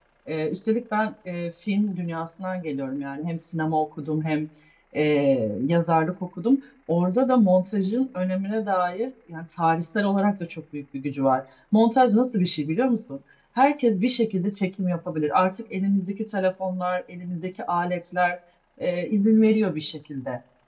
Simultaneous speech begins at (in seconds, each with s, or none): none